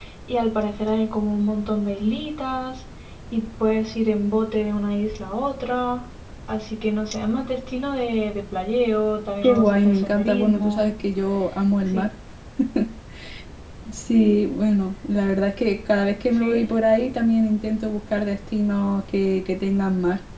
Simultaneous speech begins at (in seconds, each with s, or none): 9.4 s